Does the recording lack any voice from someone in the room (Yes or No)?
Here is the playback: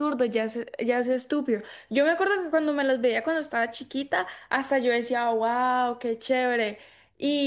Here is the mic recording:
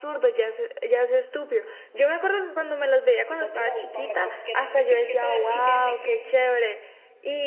No